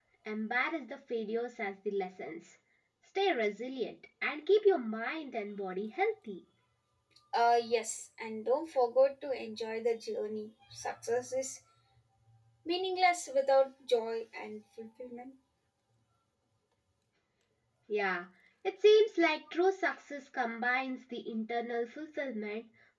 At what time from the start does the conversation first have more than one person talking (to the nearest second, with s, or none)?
none